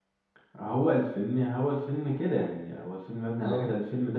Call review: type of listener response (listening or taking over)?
listening